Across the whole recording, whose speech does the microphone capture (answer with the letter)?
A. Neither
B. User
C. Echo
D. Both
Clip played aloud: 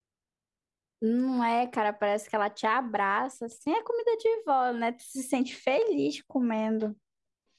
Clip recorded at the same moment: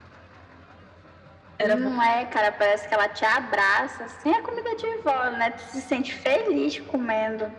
D